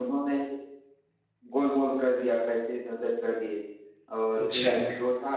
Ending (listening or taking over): listening